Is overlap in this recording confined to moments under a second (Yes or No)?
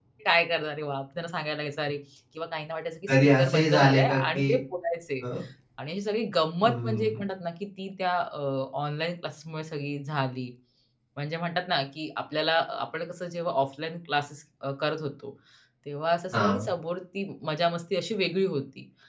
No